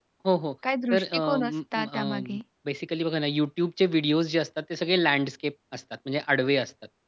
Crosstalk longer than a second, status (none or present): present